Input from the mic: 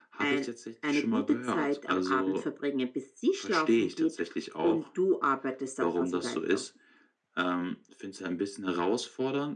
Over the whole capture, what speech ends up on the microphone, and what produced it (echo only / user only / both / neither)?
echo only